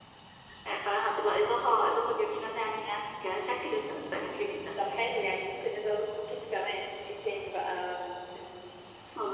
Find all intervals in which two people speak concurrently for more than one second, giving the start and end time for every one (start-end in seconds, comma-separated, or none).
none